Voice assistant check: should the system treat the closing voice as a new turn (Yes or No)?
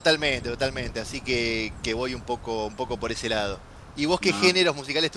No